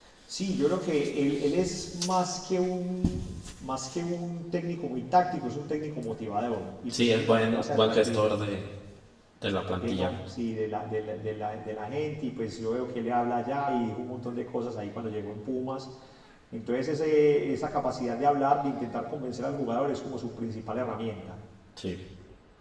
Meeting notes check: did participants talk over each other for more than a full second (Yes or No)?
Yes